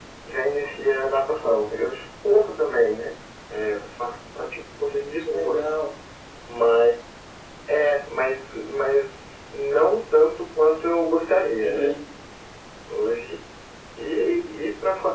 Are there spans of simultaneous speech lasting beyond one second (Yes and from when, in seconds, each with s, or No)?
No